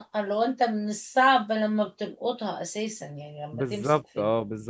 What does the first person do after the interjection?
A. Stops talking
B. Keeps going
A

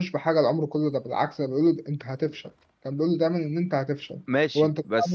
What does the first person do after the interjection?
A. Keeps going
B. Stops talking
B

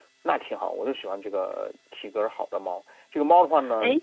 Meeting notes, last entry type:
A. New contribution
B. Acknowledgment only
B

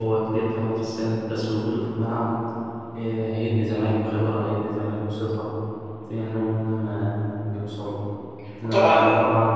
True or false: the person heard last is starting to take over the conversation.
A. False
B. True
A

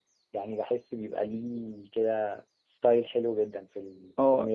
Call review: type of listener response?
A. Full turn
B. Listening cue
A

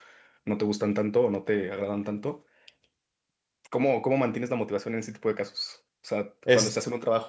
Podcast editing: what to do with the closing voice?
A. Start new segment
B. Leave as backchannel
B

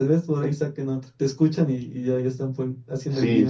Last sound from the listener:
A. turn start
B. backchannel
A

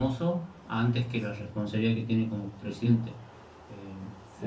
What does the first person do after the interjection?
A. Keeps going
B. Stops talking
A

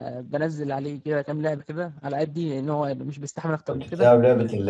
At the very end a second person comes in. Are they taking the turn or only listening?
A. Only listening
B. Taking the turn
B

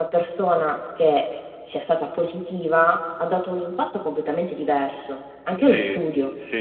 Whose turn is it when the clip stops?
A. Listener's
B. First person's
A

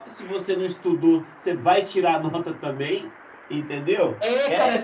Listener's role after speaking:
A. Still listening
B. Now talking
B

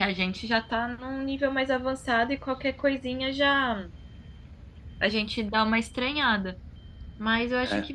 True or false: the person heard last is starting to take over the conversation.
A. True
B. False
B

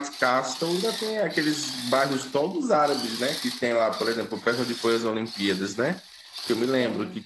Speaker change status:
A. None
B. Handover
A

